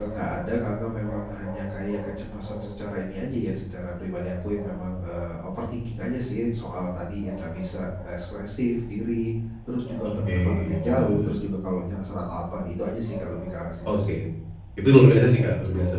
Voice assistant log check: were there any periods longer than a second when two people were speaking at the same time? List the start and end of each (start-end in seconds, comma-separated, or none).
10.0-11.4